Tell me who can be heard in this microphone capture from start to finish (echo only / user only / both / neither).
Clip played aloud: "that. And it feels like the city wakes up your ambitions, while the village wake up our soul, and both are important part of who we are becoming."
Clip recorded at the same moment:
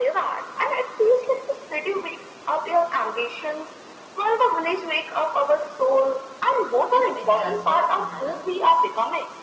both